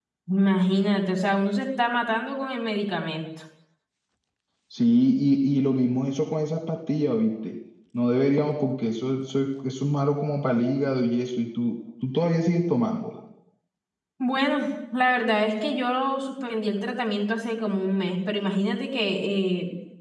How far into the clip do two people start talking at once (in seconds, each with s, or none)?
none